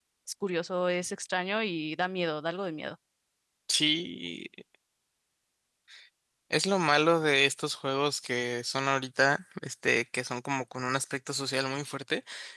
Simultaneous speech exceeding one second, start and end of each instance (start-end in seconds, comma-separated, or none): none